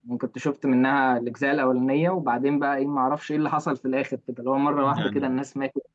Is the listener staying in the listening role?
Yes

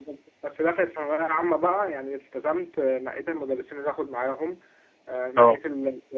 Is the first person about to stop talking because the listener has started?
No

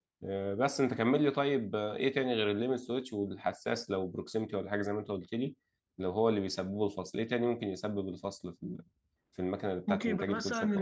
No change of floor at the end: No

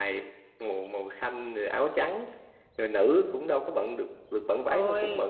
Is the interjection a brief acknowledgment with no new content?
Yes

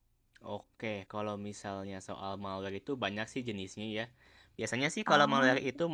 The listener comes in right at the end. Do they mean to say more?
No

